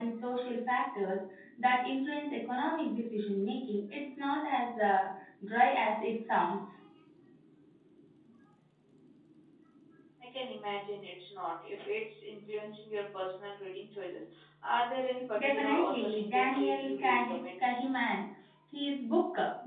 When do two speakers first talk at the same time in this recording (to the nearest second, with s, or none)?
15 s